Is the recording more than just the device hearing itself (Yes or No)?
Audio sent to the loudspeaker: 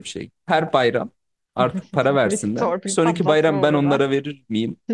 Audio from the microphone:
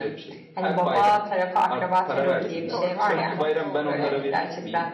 Yes